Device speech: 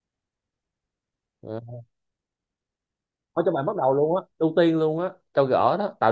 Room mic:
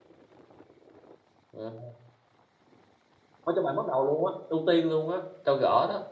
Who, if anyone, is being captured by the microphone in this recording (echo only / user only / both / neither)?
echo only